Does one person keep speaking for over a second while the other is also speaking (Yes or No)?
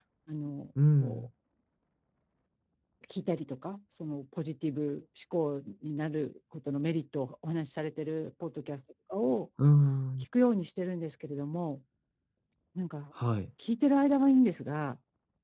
No